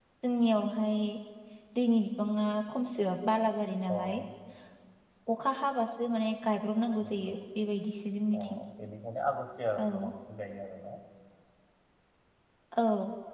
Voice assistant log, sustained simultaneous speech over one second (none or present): none